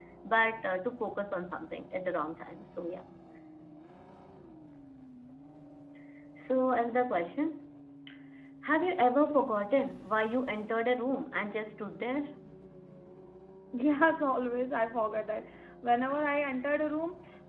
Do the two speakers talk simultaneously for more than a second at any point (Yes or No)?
No